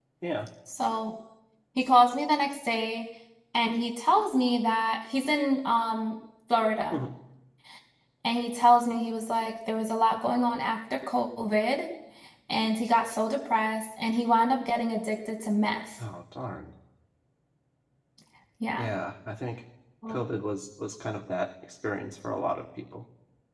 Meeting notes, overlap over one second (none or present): none